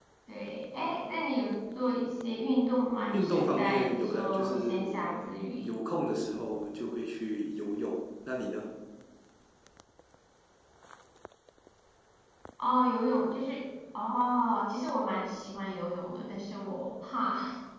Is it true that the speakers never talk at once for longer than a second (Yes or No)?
No